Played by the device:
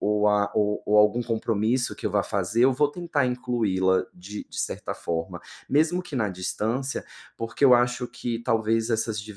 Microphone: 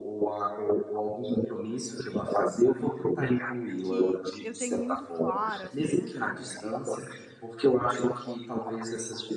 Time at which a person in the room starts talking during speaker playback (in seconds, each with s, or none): 3.8 s